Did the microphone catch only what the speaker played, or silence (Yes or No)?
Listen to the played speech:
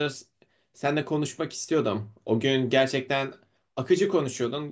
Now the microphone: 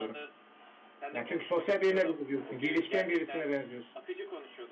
No